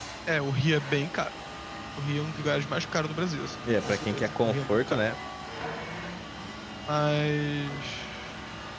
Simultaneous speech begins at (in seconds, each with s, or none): 3.6 s